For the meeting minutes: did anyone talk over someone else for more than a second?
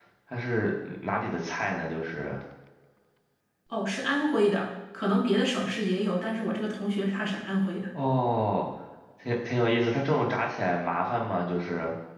No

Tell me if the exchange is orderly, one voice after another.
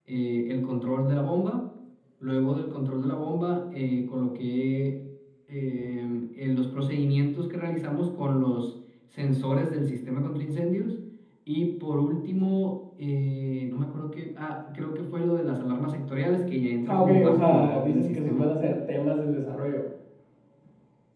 No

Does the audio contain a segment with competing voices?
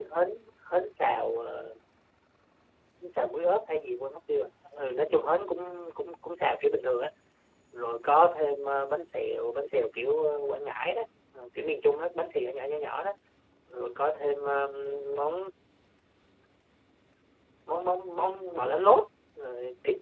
No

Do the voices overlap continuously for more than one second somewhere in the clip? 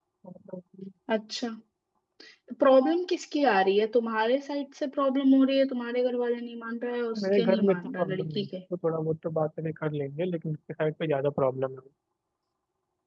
Yes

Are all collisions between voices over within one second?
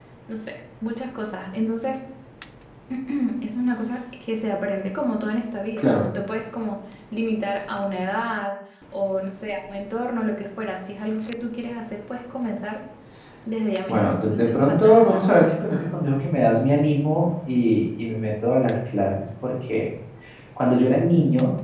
No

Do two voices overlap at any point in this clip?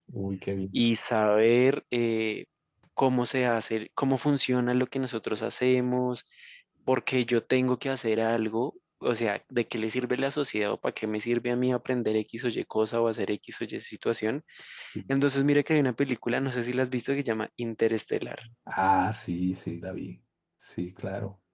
No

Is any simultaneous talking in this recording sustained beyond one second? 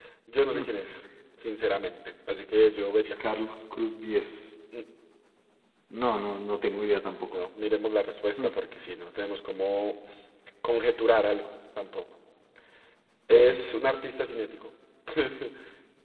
No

